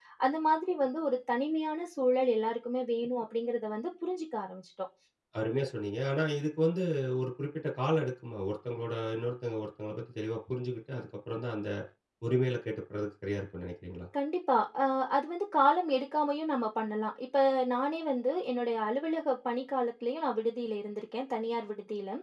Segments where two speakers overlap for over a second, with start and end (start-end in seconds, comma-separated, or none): none